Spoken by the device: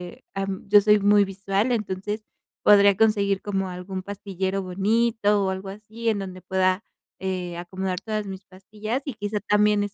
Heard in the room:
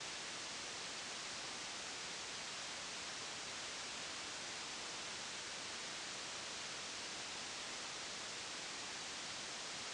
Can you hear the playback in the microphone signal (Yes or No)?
No